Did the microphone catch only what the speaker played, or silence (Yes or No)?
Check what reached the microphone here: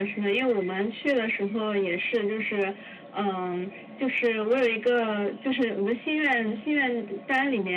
Yes